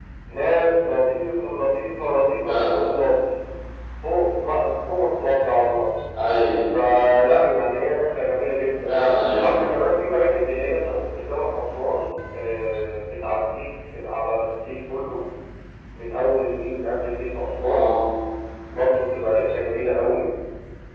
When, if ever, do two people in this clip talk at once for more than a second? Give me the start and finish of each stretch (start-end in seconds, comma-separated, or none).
none